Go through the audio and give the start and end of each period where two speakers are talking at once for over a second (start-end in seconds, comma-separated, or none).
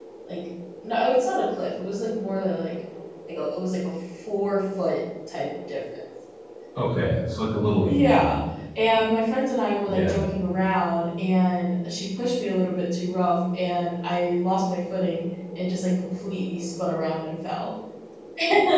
none